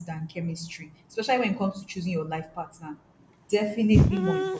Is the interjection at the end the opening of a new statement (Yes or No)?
Yes